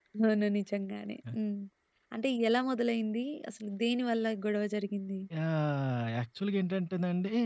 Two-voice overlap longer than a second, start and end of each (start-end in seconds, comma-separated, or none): none